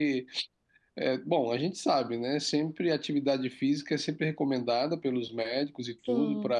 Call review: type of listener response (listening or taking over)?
listening